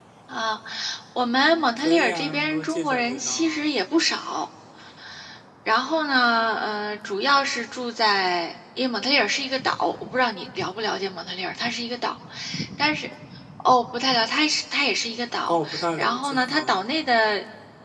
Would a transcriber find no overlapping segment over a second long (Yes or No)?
No